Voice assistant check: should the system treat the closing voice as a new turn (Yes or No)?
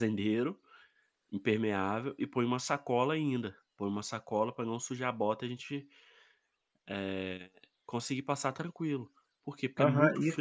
Yes